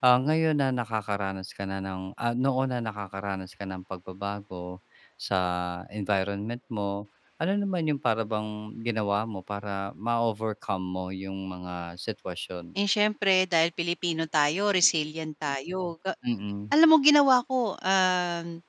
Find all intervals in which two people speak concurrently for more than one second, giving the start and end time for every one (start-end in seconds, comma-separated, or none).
none